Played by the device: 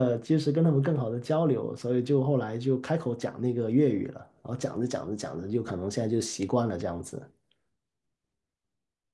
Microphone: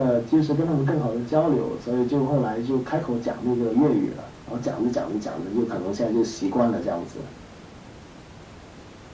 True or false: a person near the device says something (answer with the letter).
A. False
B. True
A